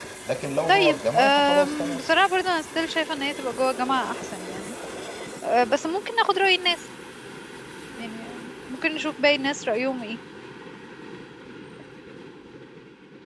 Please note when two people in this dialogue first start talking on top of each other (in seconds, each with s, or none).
0.7 s